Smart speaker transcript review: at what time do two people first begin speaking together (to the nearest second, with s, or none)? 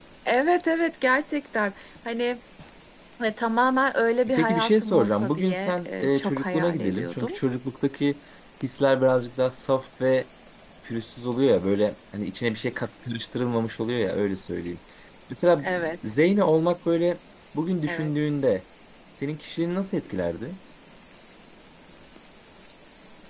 4 s